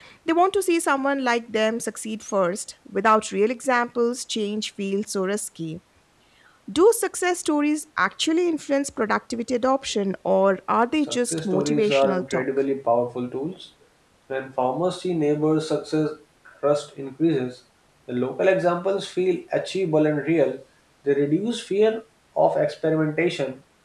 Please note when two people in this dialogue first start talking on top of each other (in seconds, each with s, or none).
11.1 s